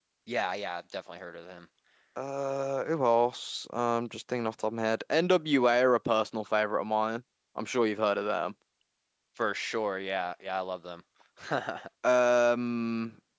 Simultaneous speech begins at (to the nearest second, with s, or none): none